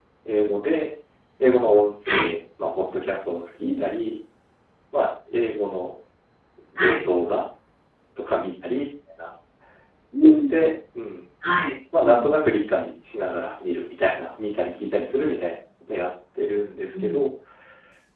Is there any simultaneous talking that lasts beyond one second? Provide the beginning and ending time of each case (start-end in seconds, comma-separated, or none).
none